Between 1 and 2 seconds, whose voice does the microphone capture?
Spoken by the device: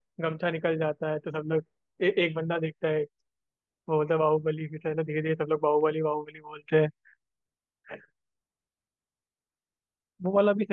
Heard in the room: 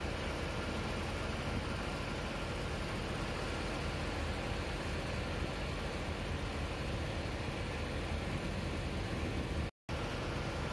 neither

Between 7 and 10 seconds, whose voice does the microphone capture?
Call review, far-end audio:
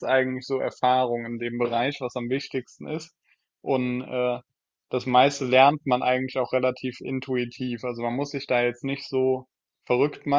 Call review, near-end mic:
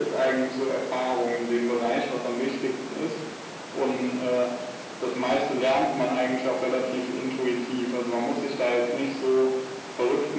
echo only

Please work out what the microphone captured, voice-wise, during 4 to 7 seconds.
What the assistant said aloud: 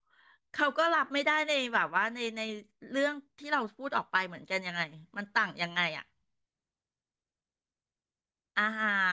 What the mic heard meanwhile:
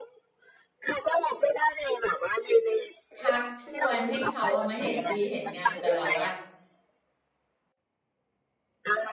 both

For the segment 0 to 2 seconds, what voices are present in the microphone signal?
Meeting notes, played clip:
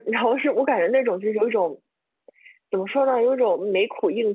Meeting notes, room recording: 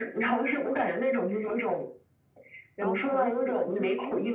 echo only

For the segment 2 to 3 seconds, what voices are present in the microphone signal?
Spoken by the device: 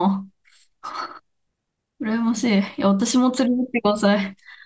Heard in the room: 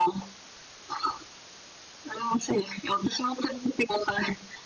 echo only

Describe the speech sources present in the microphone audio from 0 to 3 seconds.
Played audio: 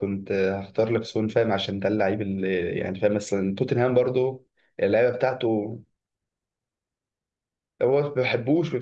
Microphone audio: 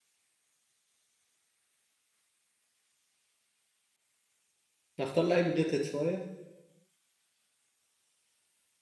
neither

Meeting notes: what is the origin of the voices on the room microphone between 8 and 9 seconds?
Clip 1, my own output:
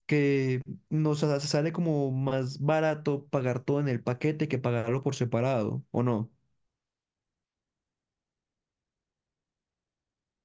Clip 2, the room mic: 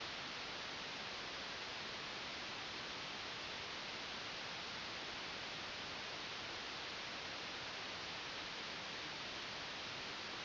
neither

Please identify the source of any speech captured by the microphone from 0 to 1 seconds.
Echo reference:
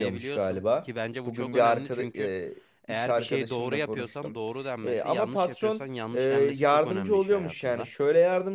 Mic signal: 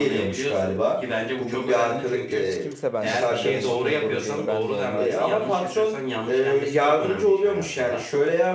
echo only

